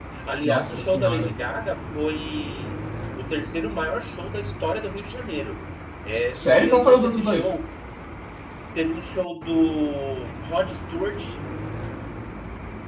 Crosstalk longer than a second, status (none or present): present